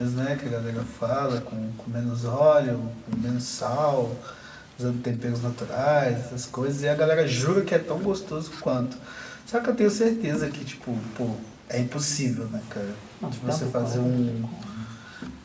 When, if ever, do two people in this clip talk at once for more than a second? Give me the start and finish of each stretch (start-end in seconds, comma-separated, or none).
13.2-14.4